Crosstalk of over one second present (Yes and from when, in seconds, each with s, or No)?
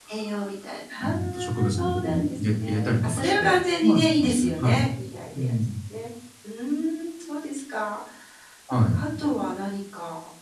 Yes, from 1.0 s